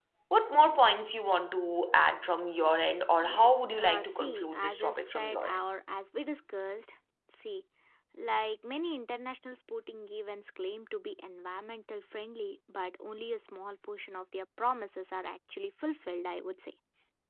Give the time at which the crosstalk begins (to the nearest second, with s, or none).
3 s